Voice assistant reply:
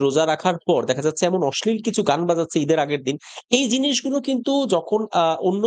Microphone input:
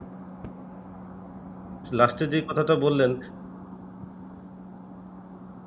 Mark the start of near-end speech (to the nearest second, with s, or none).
2 s